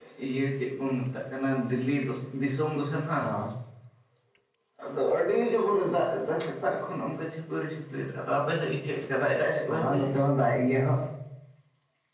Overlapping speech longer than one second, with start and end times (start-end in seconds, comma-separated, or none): none